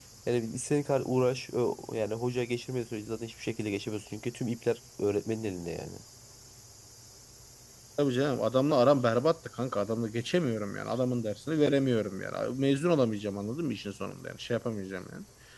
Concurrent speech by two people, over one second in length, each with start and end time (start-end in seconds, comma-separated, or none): none